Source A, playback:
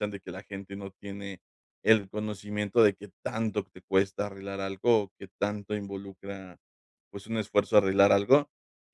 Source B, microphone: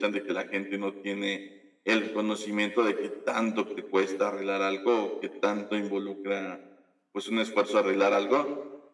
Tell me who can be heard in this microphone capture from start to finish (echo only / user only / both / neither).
echo only